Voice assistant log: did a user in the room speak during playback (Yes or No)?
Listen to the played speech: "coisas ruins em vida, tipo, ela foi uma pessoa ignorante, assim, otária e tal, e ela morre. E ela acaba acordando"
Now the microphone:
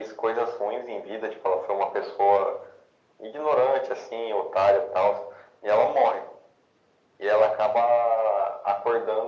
No